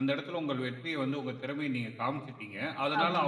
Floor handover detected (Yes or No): No